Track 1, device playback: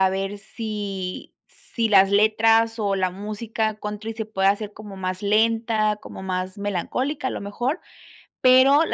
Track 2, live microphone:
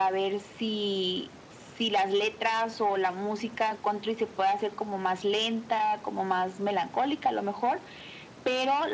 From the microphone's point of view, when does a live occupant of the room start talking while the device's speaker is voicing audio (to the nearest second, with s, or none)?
none